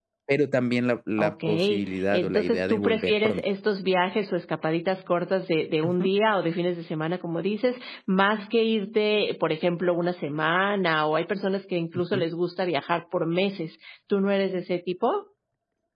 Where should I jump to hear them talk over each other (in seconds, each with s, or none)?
1.2 s